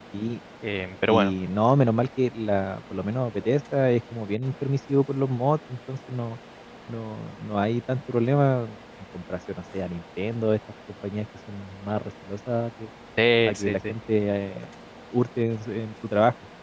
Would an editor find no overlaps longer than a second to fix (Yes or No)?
Yes